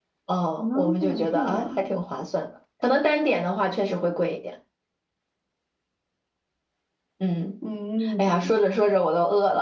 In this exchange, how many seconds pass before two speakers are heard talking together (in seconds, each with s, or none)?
0.6 s